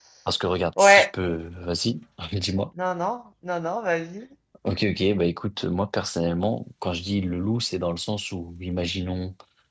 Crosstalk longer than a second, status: none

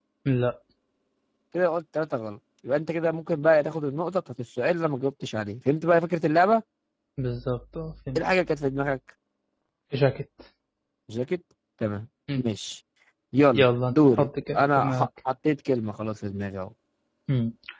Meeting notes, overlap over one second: present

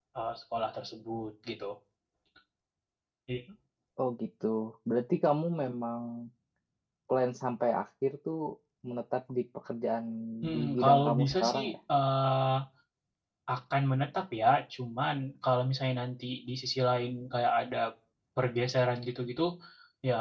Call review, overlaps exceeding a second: present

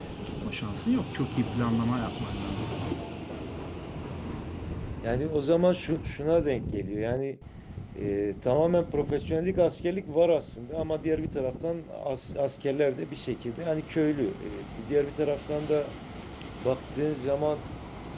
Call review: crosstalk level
none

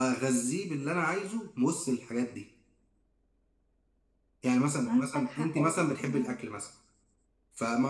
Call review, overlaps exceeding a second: present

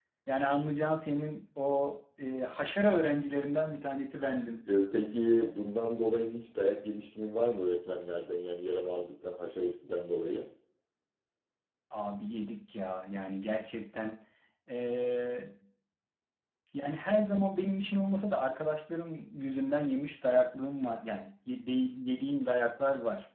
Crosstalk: none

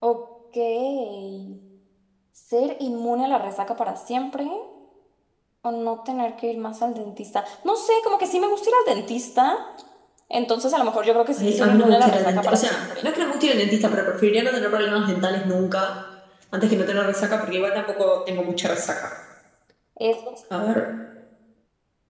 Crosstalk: present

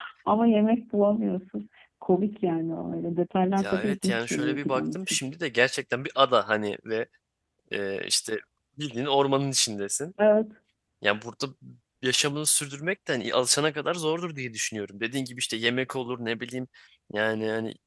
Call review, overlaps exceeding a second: present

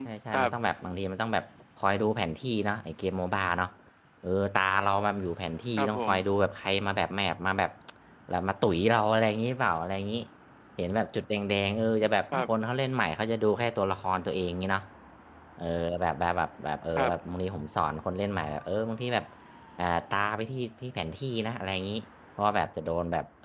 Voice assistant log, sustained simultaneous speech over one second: none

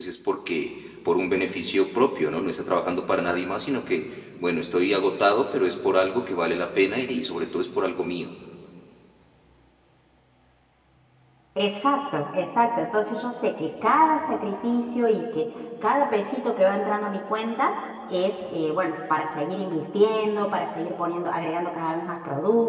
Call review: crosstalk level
none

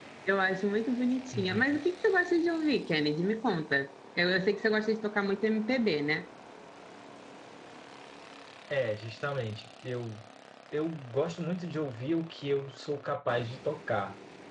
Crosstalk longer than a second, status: none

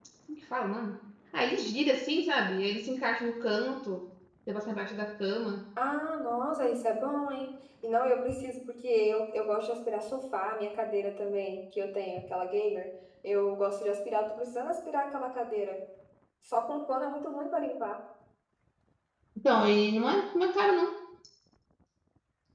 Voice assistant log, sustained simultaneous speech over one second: none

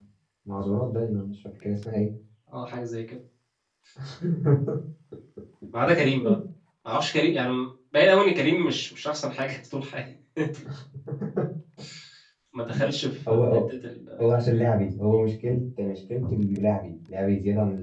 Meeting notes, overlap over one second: none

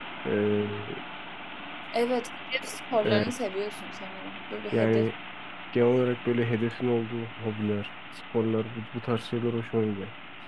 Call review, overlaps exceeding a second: none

